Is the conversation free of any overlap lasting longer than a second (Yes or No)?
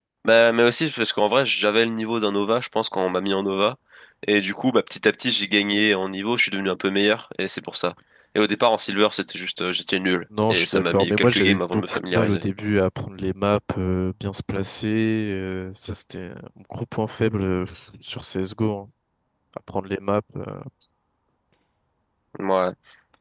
No